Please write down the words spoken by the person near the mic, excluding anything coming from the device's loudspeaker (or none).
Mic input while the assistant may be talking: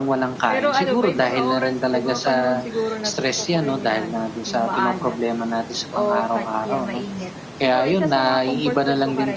none